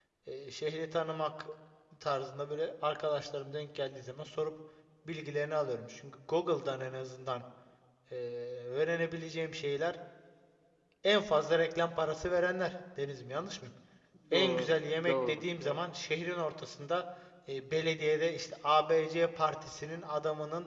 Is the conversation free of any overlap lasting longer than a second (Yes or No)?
No